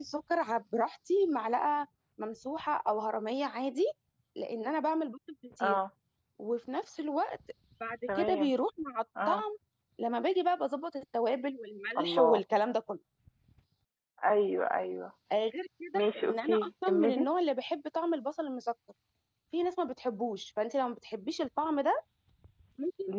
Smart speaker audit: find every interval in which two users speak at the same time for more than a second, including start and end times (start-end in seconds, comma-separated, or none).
15.9-17.2